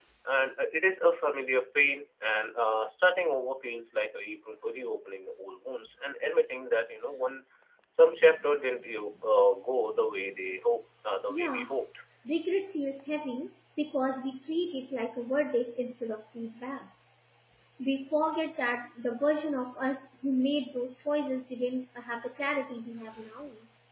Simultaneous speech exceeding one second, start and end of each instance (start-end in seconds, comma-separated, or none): none